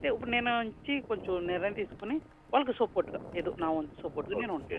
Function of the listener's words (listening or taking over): taking over